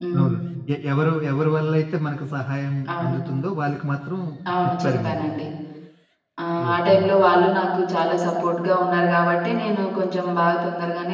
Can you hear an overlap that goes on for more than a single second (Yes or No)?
No